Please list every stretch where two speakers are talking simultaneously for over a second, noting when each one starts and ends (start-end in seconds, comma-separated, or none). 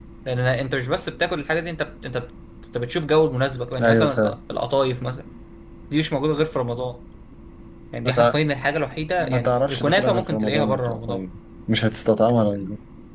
9.2-11.2